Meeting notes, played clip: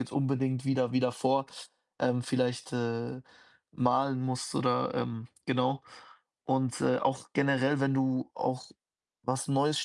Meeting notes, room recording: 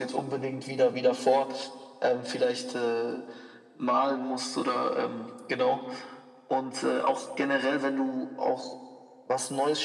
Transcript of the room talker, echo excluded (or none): none